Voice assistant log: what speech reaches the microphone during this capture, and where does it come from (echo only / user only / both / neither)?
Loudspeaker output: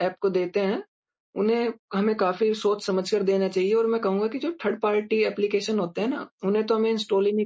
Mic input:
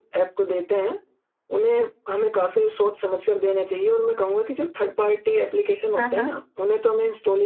both